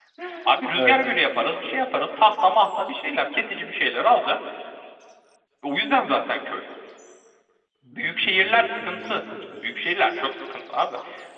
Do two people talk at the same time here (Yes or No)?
Yes